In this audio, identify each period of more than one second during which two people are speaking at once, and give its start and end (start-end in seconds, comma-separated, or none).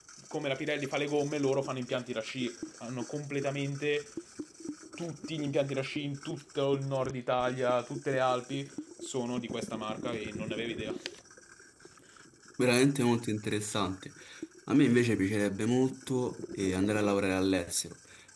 none